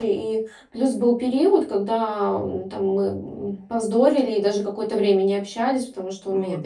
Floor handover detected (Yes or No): No